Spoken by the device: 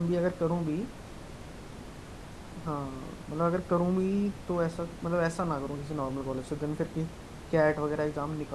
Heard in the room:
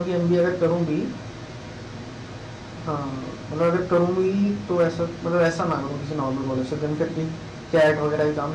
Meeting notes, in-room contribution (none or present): none